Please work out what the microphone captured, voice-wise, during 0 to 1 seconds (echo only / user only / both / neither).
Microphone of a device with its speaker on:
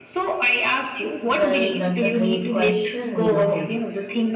echo only